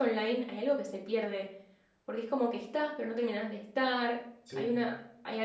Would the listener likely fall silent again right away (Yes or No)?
Yes